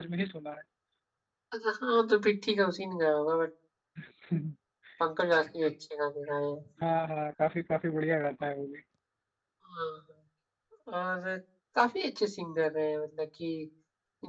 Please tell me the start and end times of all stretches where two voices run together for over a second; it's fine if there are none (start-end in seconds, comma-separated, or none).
none